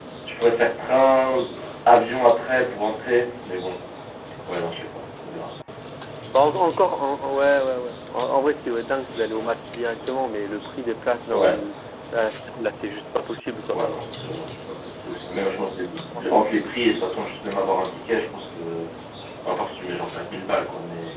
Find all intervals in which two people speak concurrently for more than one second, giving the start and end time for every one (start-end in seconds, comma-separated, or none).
none